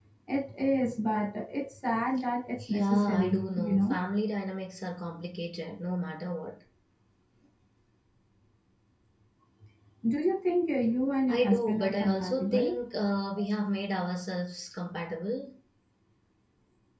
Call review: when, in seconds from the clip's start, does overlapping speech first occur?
2.7 s

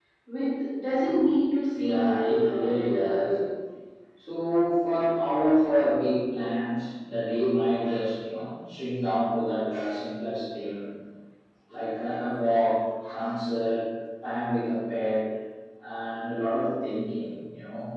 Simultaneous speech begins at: 1.7 s

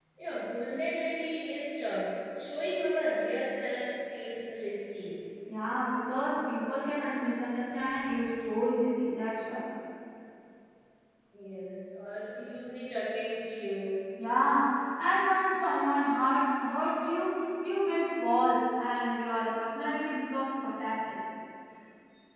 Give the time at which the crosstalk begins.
none

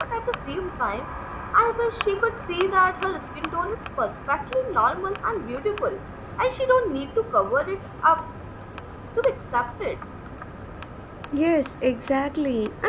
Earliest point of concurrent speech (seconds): none

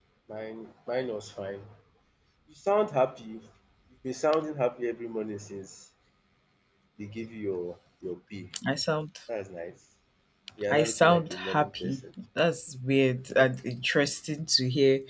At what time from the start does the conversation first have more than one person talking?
10.7 s

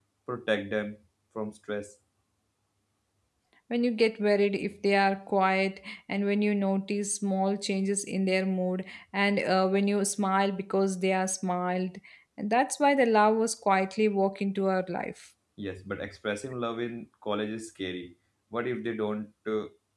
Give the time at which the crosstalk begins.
none

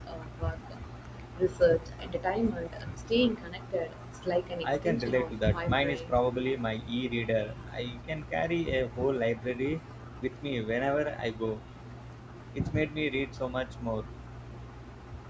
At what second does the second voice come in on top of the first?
4.6 s

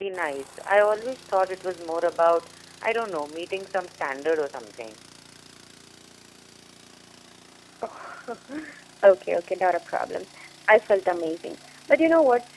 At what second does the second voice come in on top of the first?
none

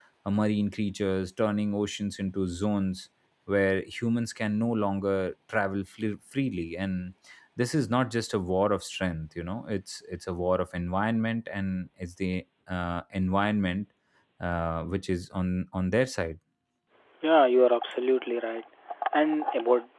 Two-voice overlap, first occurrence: none

